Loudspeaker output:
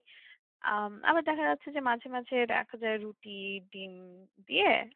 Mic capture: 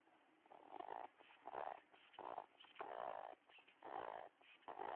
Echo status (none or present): none